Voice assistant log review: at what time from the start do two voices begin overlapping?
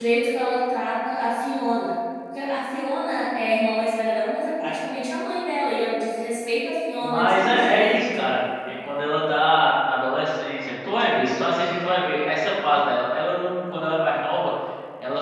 7.0 s

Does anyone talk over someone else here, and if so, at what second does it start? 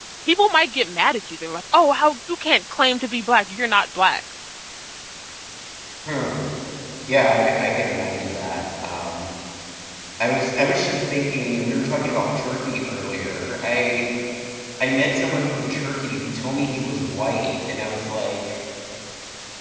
none

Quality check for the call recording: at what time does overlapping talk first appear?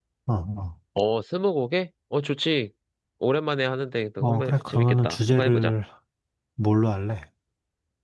4.2 s

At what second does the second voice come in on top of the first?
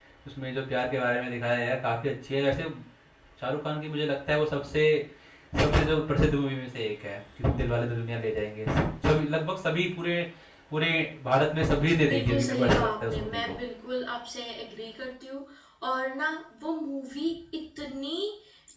12.0 s

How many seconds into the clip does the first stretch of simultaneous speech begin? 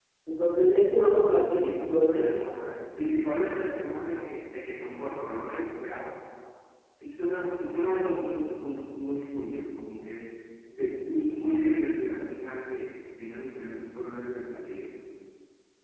0.9 s

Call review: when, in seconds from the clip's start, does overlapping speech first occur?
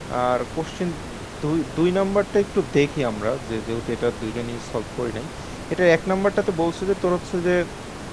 none

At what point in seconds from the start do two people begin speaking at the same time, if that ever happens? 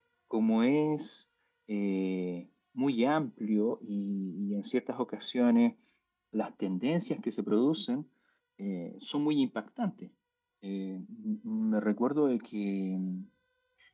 none

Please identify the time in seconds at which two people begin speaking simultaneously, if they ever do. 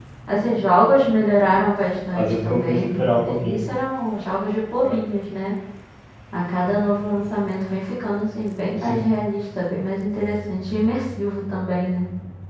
2.1 s

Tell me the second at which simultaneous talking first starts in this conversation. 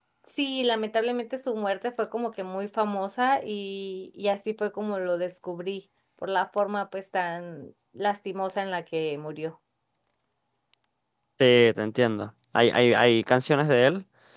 none

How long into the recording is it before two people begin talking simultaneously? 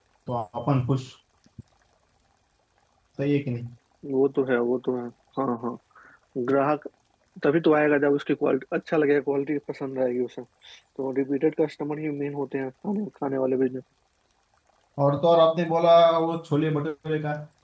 none

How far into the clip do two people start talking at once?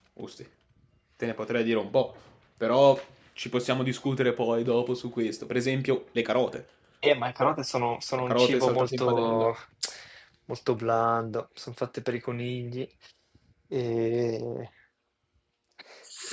8.1 s

